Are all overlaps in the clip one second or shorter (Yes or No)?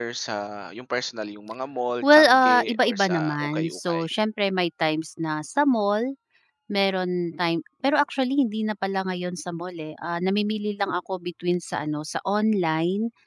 No